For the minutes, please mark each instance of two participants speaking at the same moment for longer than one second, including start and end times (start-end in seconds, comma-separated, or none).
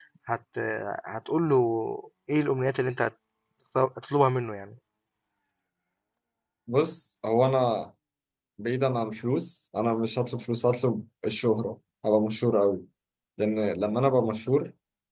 none